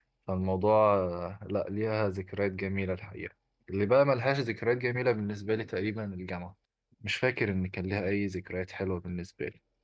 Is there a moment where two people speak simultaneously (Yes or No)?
No